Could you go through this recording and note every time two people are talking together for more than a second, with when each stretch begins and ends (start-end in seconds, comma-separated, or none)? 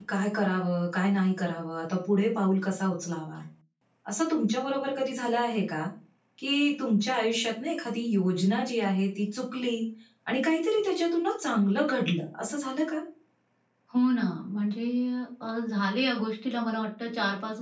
none